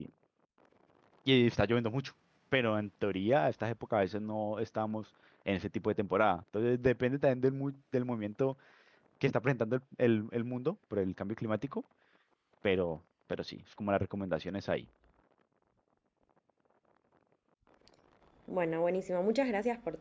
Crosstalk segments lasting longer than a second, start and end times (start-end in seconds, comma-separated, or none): none